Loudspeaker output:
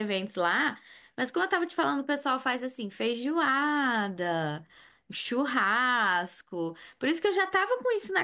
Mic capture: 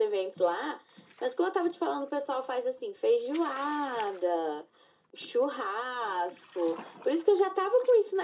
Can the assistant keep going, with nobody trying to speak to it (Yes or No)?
Yes